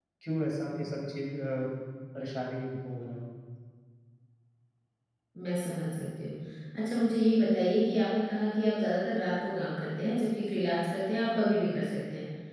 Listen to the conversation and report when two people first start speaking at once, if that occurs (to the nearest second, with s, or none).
none